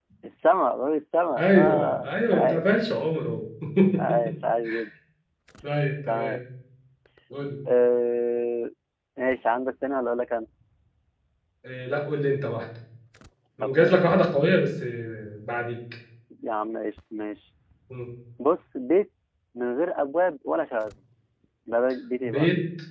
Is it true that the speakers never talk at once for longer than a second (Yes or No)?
No